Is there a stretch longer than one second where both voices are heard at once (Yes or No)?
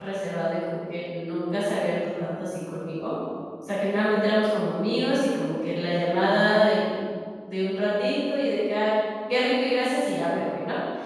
No